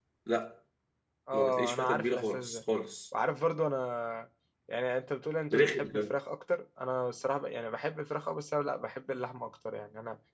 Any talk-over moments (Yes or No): Yes